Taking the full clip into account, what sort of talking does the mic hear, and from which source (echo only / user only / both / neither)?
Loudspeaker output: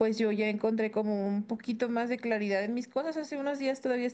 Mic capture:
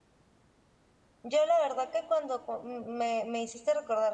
user only